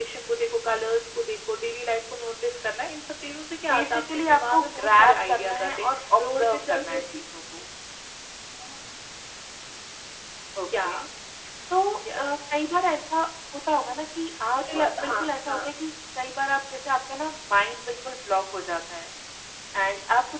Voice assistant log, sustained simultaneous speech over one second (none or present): present